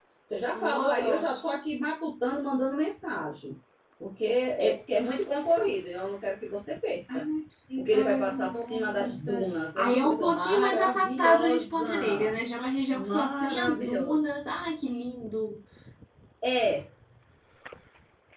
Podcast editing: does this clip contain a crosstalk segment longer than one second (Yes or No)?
Yes